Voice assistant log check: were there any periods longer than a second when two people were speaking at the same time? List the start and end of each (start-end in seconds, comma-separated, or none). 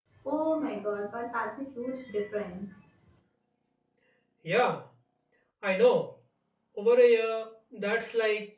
none